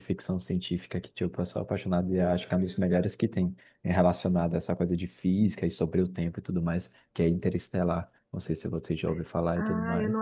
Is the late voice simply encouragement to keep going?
No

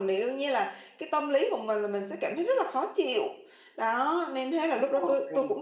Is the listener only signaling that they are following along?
Yes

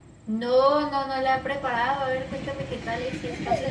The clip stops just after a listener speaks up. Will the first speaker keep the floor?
No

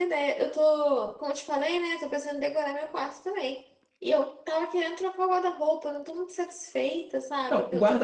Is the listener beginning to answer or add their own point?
Yes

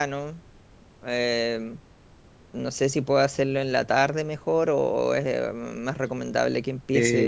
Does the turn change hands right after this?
Yes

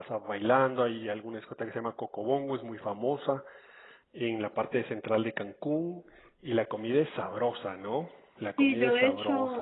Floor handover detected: Yes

